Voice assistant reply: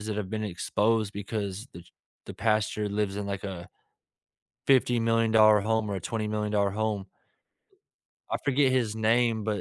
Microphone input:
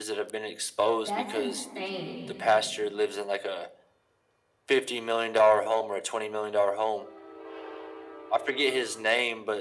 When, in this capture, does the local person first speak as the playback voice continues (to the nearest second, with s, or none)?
1 s